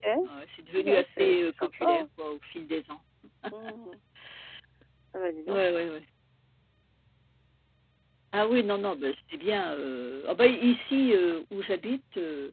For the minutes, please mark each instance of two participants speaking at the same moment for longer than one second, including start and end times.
0.8-2.0

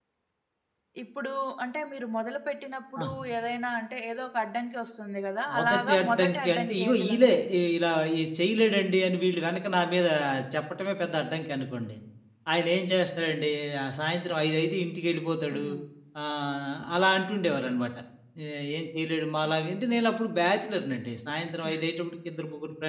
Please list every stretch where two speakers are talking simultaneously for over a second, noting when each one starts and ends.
5.6-7.4

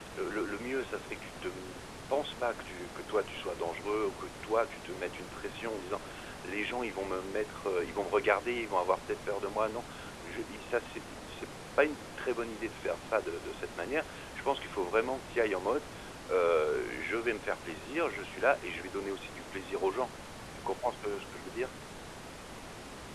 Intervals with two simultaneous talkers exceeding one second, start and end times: none

